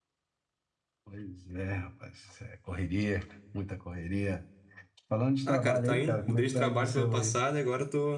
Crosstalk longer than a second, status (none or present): present